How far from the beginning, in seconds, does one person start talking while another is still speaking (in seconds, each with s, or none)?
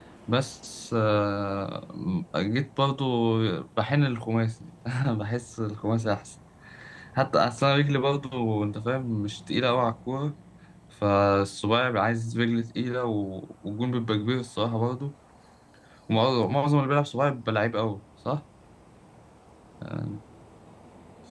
none